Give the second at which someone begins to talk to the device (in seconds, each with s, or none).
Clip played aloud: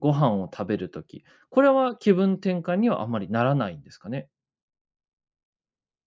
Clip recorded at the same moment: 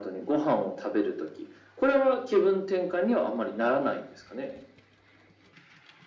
none